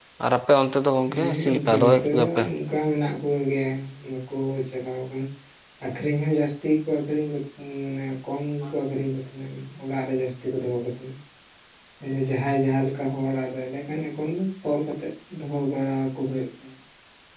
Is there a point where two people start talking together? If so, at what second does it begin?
1.2 s

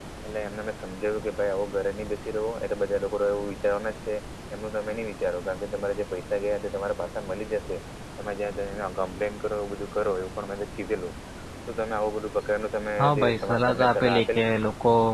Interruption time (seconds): 13.0 s

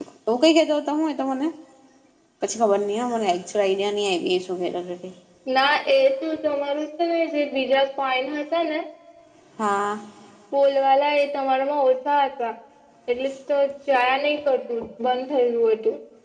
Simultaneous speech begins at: none

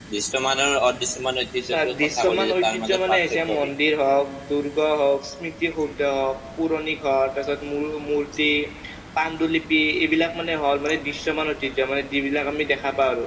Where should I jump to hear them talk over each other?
1.6 s

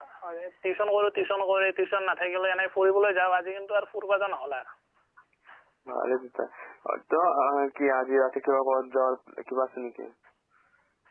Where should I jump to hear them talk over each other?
none

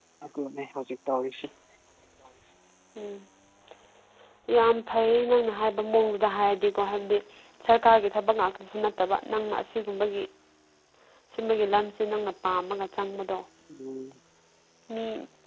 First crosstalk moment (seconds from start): none

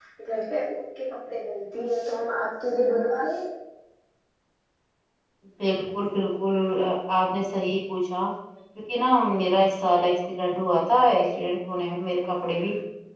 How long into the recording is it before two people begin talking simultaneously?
none

